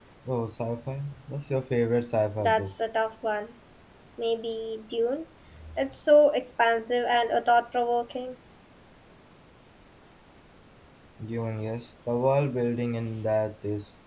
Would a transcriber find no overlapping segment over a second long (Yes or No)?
Yes